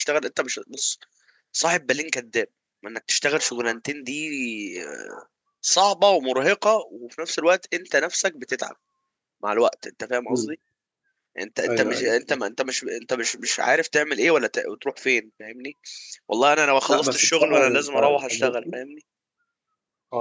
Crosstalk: present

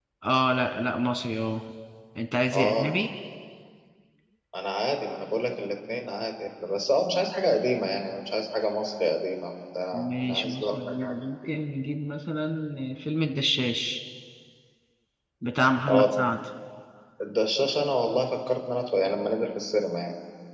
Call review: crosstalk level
present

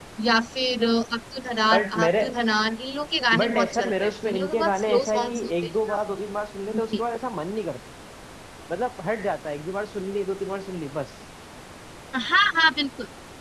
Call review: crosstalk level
present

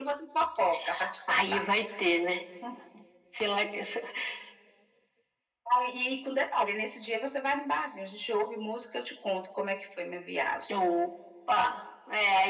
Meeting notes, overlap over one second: none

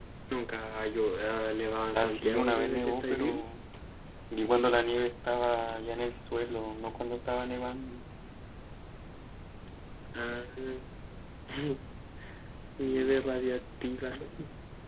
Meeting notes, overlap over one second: present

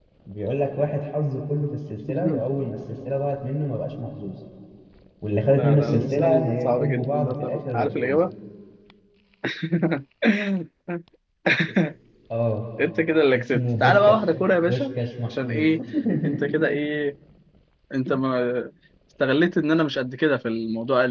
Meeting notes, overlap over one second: present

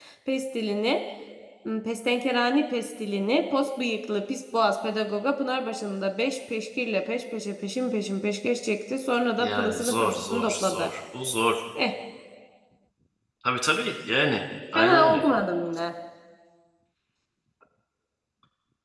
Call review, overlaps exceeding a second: present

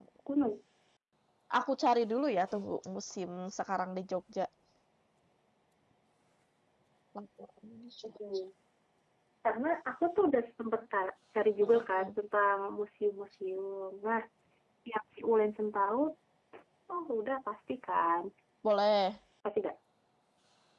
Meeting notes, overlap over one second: none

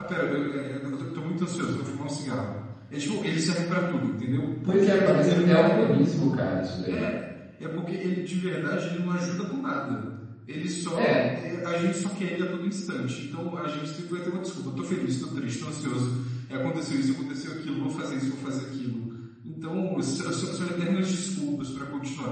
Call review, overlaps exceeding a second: present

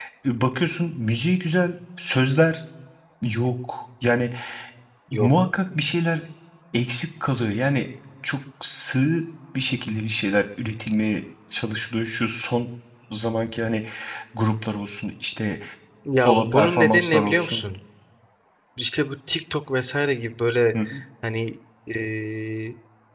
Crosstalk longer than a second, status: present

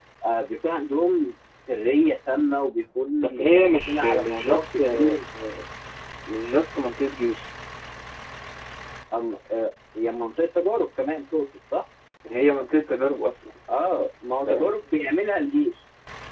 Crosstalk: present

